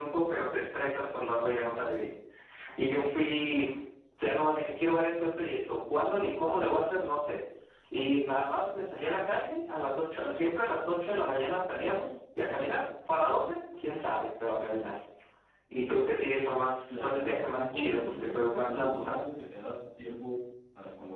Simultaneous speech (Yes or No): Yes